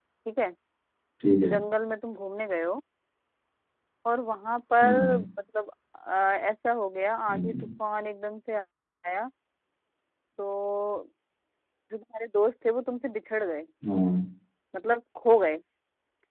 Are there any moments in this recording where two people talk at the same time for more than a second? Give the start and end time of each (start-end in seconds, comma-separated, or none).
none